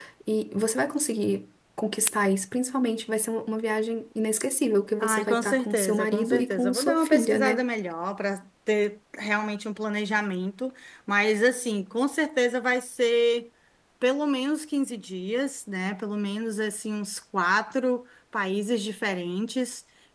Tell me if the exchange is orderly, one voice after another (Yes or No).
No